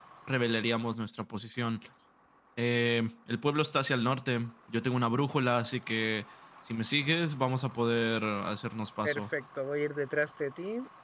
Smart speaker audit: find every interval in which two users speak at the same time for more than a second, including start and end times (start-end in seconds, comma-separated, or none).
none